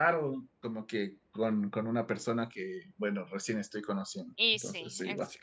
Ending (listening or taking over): taking over